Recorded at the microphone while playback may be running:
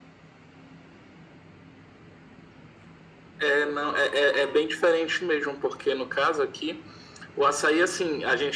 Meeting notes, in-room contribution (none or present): none